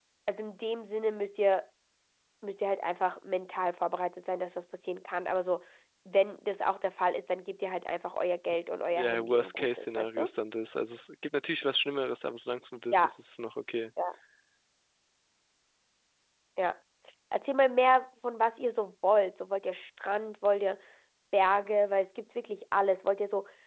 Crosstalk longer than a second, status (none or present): present